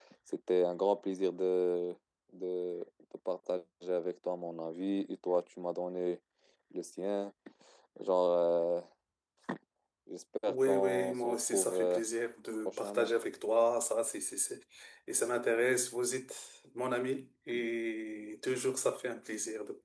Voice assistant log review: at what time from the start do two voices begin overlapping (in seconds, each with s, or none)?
10.5 s